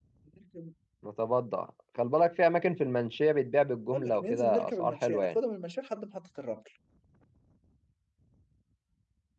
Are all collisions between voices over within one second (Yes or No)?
No